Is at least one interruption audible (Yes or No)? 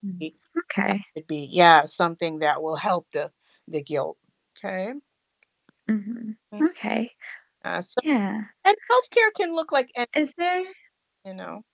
No